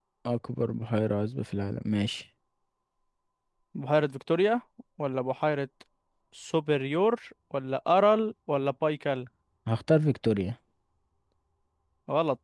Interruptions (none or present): none